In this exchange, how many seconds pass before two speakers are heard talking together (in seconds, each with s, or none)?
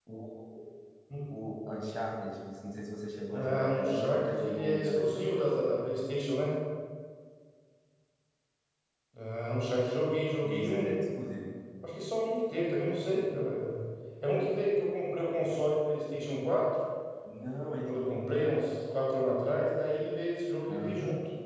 3.3 s